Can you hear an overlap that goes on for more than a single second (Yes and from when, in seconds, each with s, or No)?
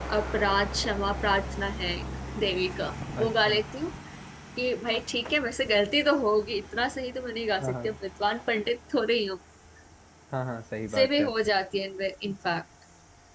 No